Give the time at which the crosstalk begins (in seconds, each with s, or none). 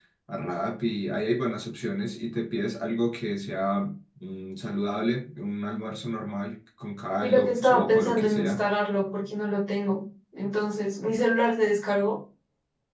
7.2 s